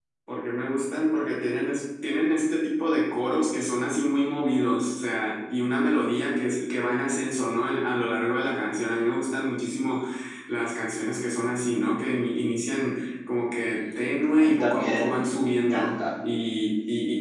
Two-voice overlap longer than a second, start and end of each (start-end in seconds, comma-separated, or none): 13.8-16.0